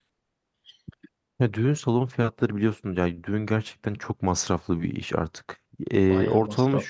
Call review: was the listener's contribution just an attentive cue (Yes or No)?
Yes